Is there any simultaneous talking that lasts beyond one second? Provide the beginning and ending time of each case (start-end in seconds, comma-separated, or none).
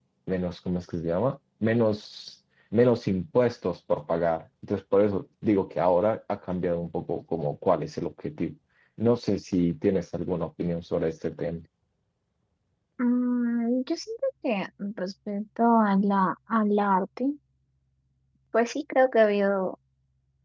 none